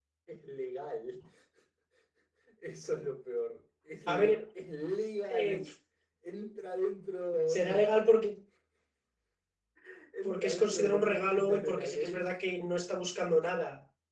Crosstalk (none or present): present